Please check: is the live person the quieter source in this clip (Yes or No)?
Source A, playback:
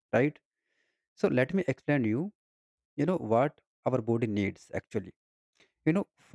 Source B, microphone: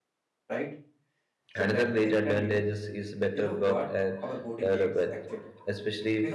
No